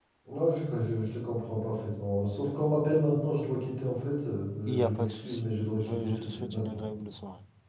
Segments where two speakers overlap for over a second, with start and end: 4.7-6.8

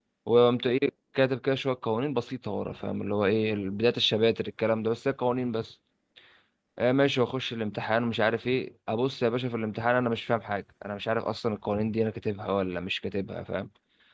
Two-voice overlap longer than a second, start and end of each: none

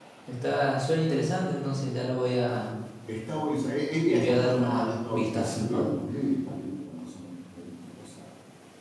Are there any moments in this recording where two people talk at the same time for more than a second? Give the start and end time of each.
4.1-5.9

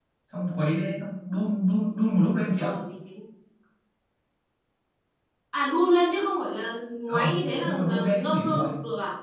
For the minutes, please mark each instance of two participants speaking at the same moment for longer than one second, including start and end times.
7.1-8.7

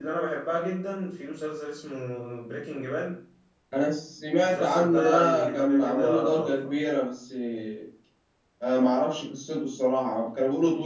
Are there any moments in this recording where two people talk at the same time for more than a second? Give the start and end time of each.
4.3-6.7

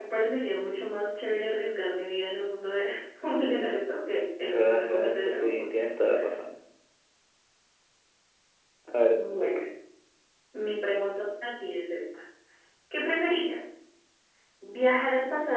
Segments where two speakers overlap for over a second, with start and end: 4.4-5.7

